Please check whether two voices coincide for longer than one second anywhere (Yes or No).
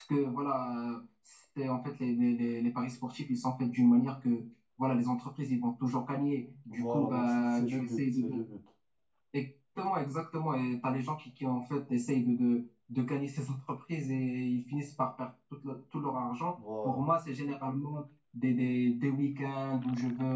Yes